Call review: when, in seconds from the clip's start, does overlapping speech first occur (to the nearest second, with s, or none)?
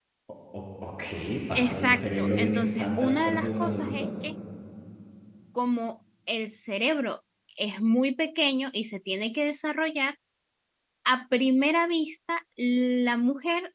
2 s